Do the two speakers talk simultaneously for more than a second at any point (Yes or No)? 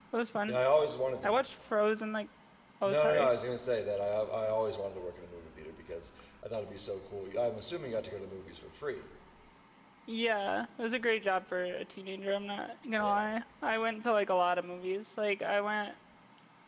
No